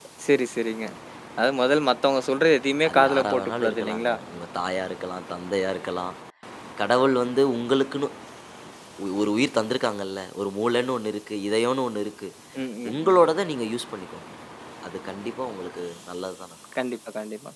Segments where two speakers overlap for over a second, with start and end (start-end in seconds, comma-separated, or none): 2.9-4.1